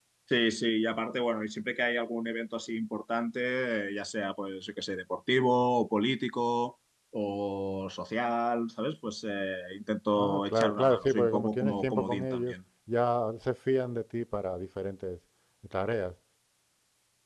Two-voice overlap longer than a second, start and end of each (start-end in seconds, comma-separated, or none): 10.2-12.5